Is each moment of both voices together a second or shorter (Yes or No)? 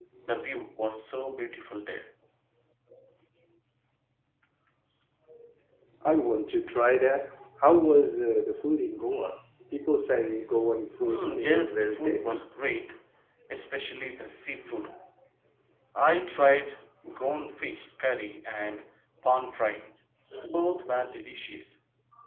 No